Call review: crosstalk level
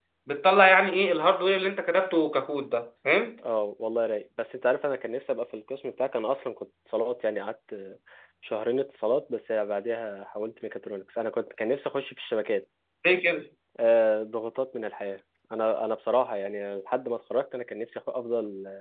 none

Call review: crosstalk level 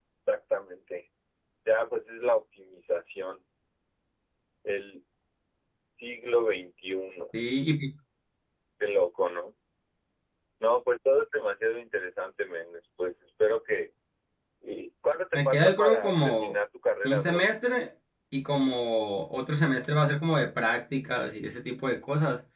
present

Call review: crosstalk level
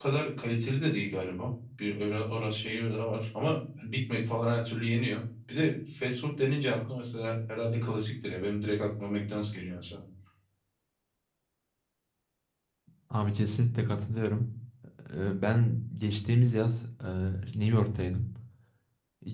none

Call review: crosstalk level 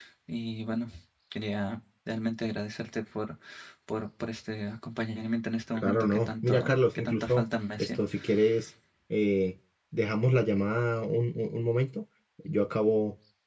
present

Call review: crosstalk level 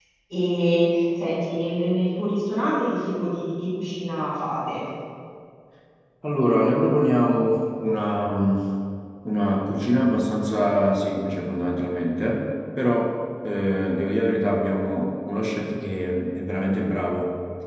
none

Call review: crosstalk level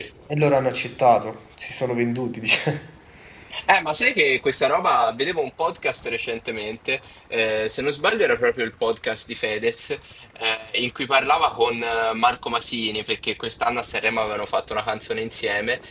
none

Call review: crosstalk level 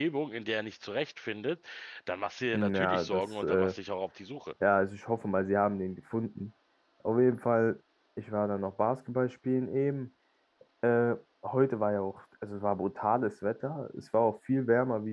present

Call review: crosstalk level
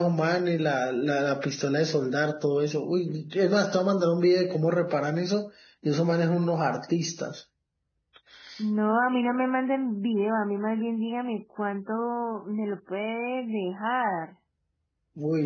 none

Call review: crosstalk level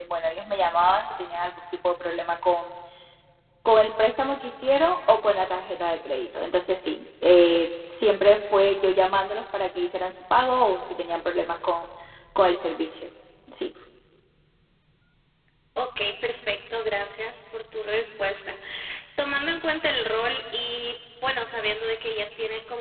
none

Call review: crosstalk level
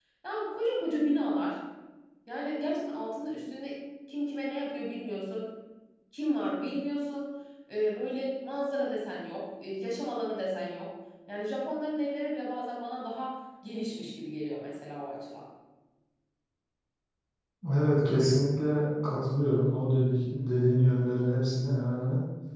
none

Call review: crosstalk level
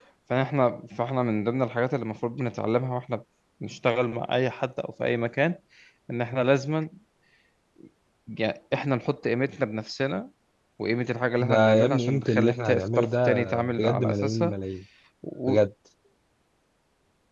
present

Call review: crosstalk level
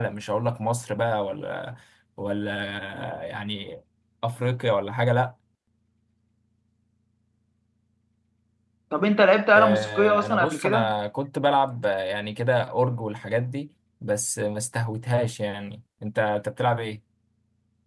present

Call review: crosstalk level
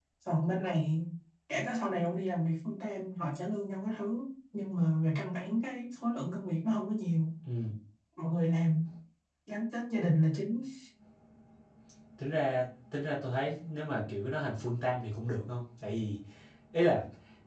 none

